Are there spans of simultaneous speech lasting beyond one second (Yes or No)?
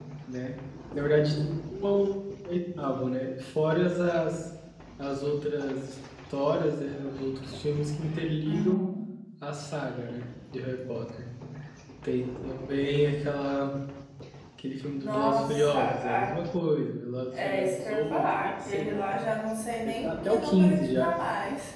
Yes